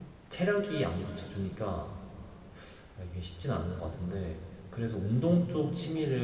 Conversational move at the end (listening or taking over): listening